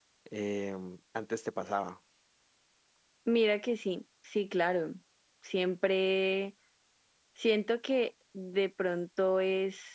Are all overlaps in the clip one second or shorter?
Yes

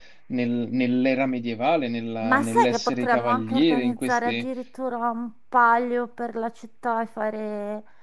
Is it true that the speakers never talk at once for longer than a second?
No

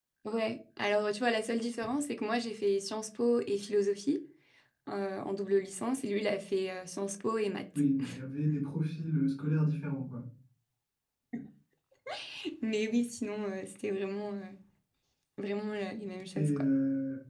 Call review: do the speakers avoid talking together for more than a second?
Yes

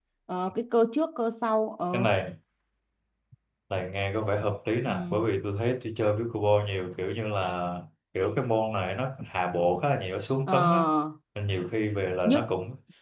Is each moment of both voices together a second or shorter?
Yes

